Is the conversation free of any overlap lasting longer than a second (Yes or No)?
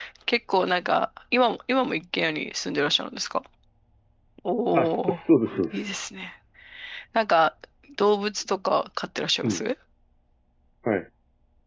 Yes